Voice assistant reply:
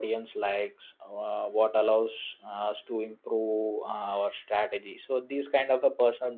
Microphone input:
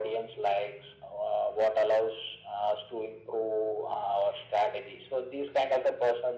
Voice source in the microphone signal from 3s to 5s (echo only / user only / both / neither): echo only